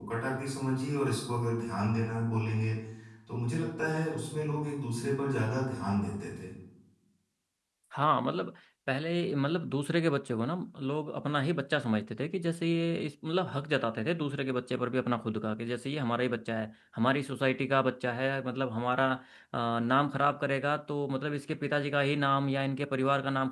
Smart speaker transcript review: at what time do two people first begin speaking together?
none

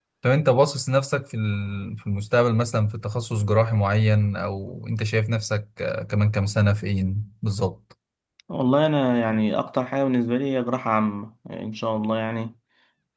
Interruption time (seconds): none

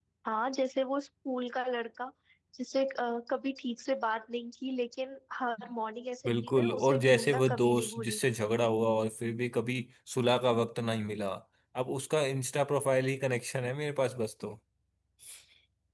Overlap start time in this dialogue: 6.2 s

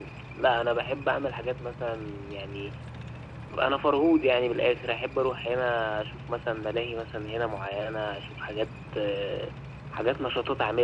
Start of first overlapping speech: none

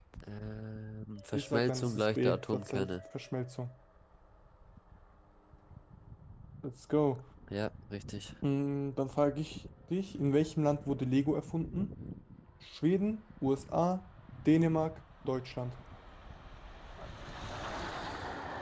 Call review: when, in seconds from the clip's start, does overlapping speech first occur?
1.3 s

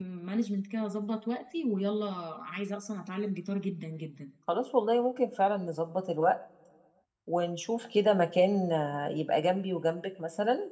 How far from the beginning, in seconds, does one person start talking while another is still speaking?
none

